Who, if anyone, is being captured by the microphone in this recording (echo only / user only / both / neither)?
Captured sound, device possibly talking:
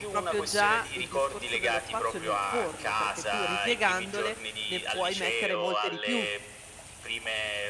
both